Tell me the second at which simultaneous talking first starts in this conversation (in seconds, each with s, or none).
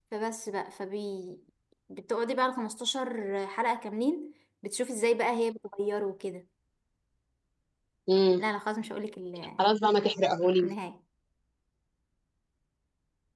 none